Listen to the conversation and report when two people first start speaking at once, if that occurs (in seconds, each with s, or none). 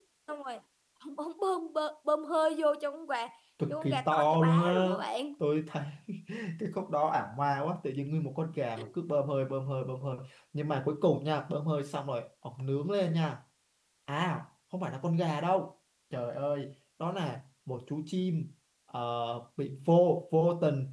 3.7 s